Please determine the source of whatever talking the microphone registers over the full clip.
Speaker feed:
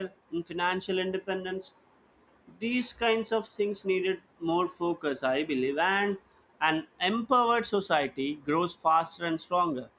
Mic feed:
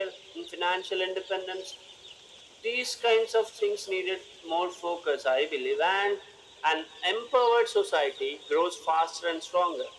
echo only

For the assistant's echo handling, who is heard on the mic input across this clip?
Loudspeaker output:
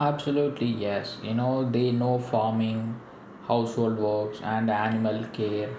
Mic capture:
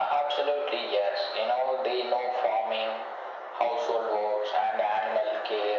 echo only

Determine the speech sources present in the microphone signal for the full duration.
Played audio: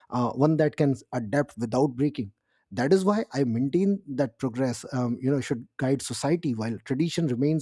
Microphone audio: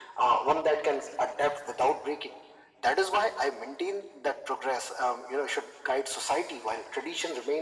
echo only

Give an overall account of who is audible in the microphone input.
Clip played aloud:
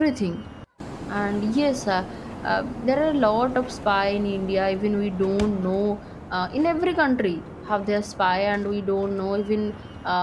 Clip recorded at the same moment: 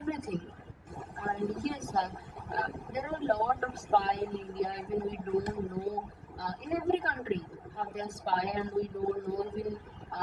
echo only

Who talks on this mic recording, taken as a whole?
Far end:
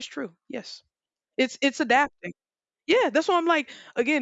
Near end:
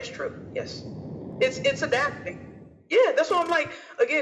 echo only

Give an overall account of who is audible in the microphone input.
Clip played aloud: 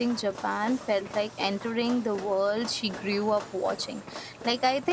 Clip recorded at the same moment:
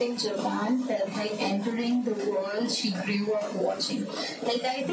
echo only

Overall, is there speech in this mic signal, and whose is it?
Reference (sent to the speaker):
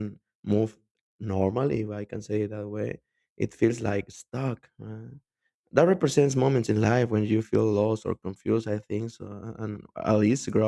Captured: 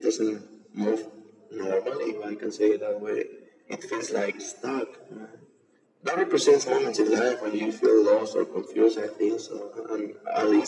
echo only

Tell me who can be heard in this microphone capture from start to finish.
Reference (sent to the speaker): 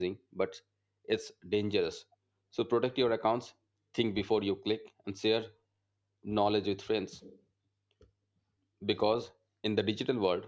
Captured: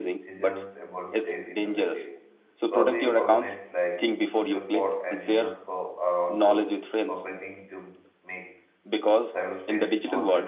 both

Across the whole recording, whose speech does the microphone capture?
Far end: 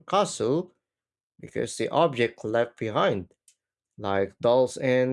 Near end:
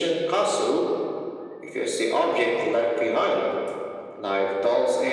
echo only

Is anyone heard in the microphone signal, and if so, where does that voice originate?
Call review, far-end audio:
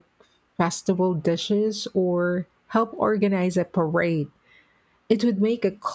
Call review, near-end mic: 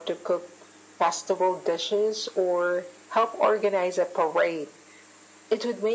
echo only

